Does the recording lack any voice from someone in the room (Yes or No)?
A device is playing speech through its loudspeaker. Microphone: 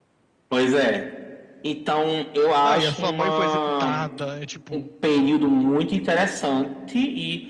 No